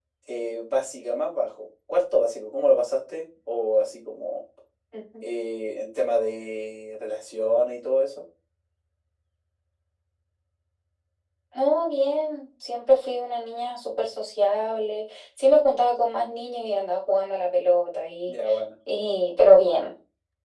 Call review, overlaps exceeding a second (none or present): none